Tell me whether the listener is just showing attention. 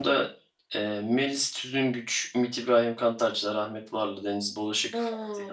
No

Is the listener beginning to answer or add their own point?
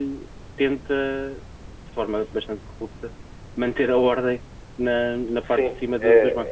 Yes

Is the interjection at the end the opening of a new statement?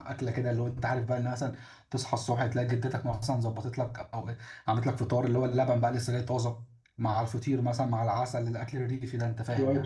Yes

